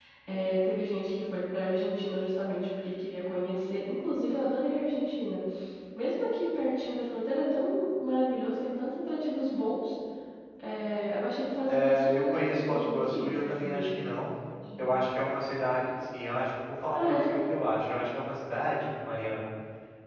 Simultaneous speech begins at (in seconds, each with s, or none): 11.7 s